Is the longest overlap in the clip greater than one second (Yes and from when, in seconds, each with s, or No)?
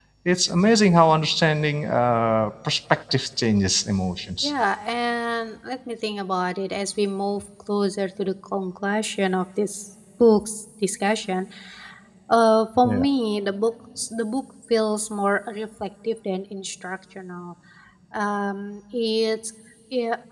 No